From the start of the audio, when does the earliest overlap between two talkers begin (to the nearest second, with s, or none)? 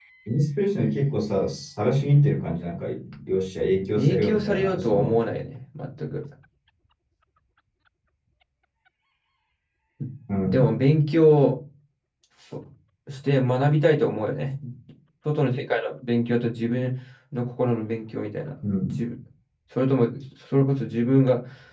4 s